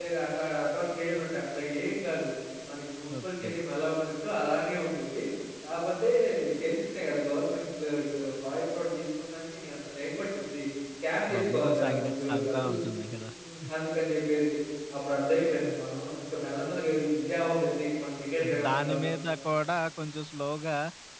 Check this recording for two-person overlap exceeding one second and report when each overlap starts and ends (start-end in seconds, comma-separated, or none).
11.3-12.8